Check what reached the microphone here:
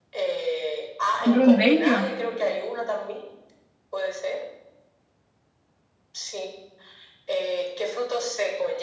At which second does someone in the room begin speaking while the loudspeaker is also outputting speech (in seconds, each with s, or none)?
1.3 s